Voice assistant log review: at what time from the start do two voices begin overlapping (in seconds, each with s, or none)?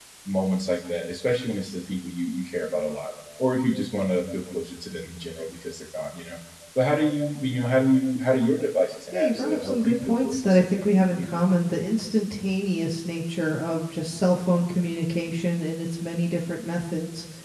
9.1 s